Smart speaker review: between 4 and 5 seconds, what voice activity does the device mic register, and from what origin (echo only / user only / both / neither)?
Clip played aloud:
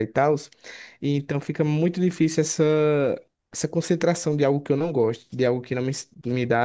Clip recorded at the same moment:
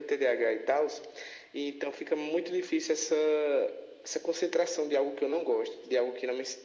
echo only